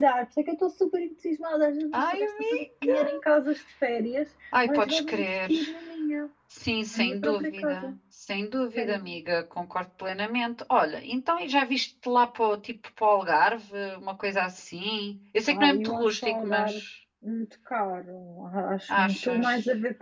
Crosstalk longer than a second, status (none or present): present